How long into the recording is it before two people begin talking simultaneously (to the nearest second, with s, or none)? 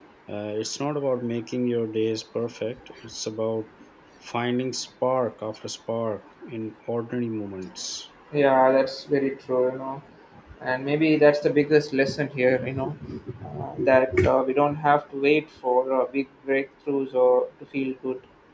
none